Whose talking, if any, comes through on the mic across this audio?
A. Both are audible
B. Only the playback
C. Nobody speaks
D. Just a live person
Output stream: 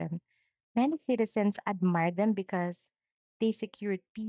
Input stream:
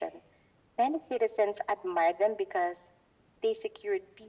B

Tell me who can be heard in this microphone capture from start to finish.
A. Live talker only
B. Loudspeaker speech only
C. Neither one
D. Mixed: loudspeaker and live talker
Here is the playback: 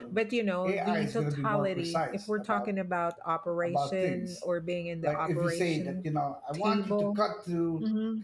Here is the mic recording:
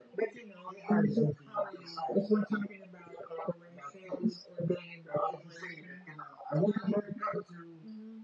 B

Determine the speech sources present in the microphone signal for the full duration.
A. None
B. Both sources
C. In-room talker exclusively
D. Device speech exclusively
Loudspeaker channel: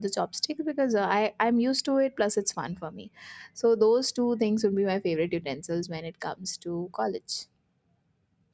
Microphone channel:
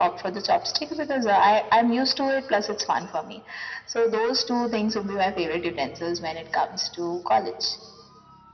D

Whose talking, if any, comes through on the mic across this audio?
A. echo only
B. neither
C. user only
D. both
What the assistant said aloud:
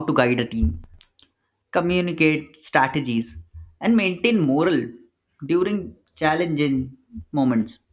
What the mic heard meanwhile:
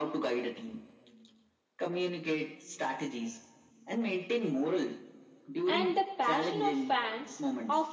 D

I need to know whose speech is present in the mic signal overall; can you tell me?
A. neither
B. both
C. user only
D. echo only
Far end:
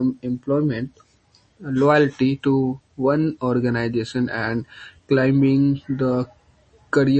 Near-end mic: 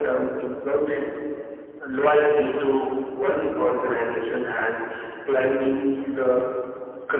D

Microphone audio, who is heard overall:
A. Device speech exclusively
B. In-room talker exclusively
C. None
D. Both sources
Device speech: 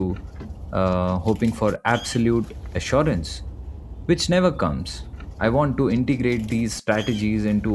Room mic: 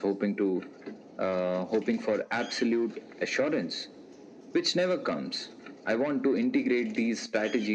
A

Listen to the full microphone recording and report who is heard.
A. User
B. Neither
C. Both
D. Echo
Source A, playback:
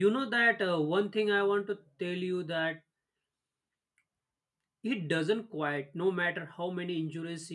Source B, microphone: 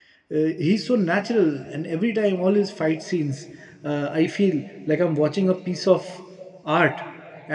A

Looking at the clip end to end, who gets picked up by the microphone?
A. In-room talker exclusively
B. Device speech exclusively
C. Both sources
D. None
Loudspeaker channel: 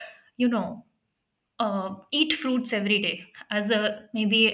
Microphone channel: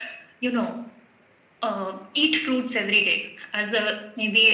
B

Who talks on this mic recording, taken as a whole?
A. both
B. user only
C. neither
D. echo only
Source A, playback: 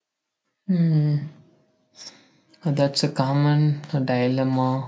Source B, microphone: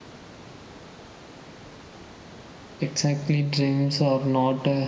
B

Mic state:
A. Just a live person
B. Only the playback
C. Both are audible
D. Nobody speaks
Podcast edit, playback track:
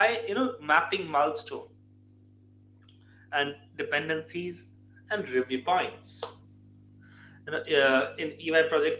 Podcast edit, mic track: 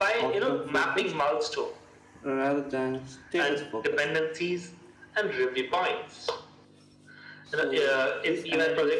C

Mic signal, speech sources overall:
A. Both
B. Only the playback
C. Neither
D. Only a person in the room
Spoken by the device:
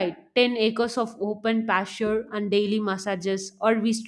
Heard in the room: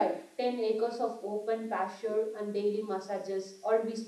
B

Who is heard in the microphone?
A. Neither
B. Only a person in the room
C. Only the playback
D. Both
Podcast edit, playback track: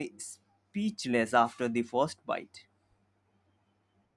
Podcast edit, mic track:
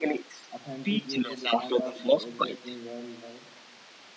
D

